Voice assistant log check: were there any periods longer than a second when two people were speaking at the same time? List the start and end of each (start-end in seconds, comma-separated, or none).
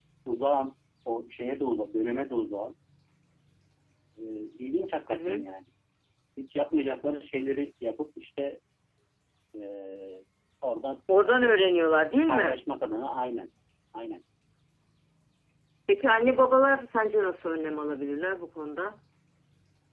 none